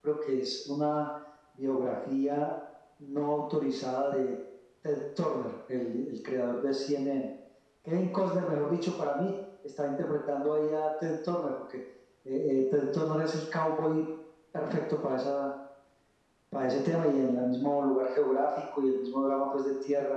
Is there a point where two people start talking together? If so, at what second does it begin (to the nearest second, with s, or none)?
none